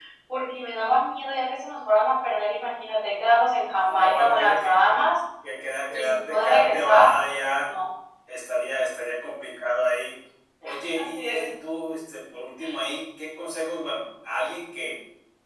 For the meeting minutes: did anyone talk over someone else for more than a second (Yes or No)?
Yes